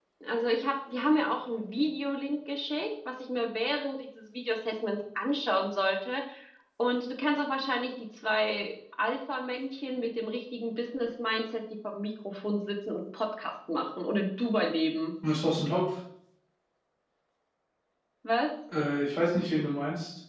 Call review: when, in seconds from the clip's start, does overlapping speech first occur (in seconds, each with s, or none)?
none